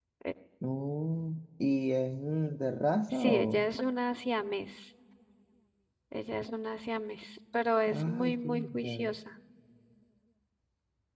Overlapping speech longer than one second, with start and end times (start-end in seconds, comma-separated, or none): 7.9-9.1